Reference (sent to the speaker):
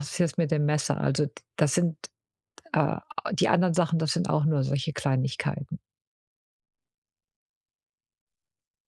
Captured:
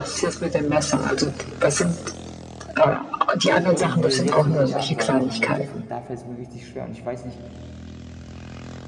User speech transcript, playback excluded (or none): äh, und mir jetzt irgendwelche Ansagen machen möchtest.“ Und da fällt es mir richtig schwer und ich weiß nicht,